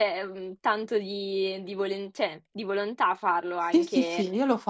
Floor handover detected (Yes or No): Yes